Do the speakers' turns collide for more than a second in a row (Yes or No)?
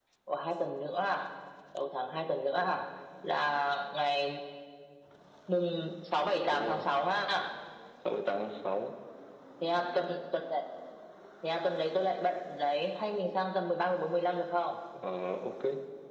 No